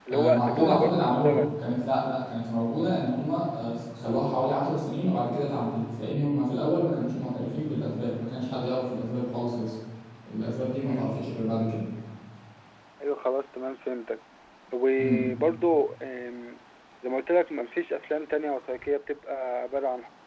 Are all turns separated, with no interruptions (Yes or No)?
No